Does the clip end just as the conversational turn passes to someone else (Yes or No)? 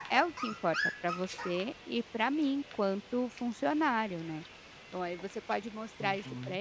No